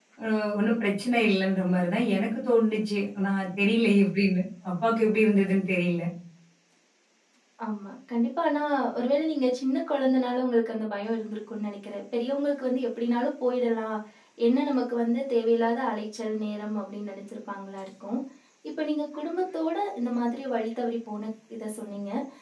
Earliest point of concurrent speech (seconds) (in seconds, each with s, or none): none